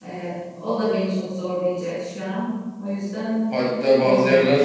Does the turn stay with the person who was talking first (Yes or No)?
No